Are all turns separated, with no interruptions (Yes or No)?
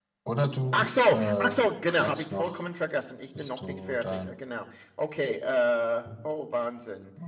No